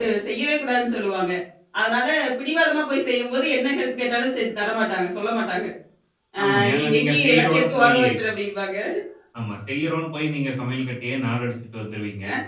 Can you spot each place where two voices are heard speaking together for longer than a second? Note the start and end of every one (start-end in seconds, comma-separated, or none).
6.4-8.0